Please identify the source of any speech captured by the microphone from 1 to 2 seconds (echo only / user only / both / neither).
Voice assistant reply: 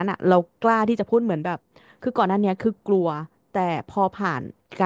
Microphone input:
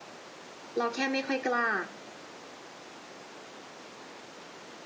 user only